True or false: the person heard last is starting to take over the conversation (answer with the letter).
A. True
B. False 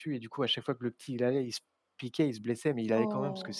B